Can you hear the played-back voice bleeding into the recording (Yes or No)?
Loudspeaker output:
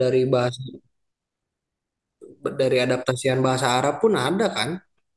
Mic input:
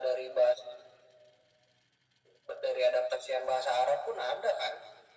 Yes